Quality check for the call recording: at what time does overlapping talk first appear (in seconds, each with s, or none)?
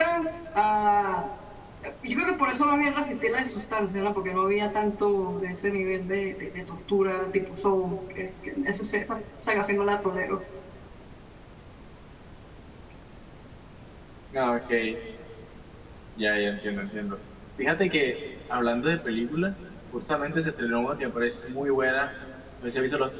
none